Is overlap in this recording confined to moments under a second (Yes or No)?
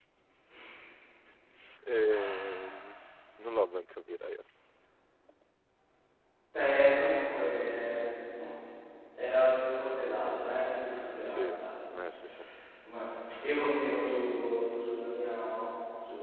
Yes